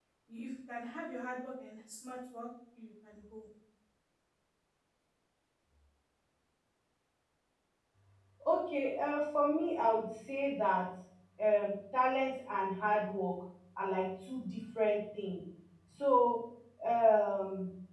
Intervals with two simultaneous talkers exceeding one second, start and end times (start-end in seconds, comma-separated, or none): none